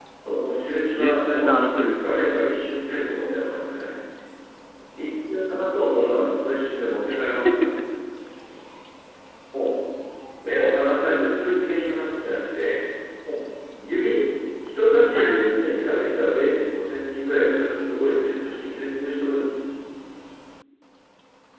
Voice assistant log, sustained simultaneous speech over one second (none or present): present